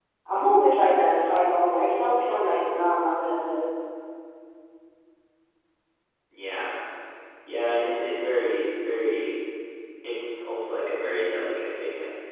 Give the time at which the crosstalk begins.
none

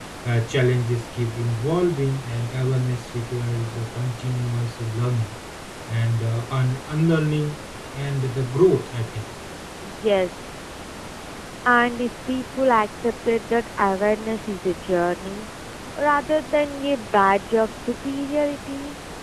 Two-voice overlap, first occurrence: none

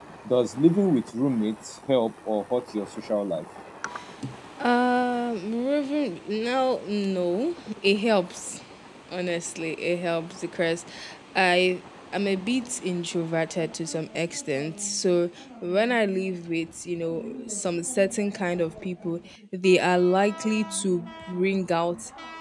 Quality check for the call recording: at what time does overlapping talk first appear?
none

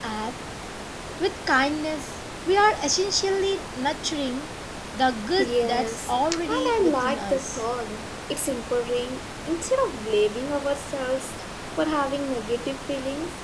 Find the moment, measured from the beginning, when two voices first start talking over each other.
5 s

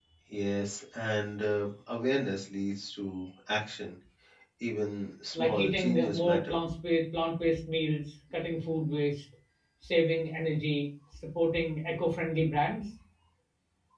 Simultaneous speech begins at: 5 s

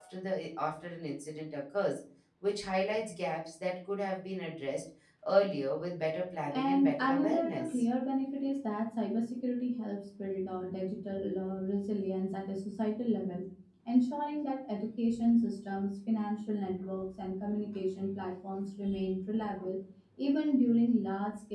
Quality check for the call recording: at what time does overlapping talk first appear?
7 s

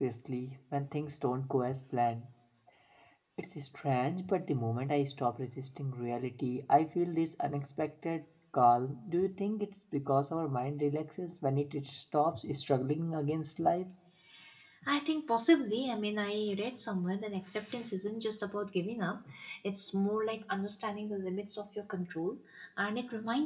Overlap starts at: none

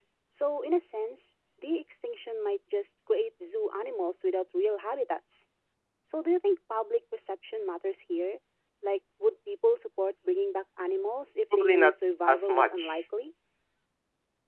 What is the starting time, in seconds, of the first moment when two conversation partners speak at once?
12 s

